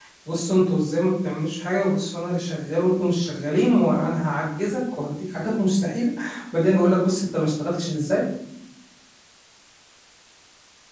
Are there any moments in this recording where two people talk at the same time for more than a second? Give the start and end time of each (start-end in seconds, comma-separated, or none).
none